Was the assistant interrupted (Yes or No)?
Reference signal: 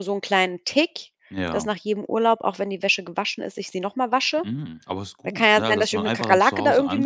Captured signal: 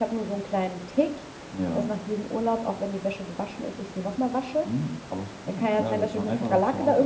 No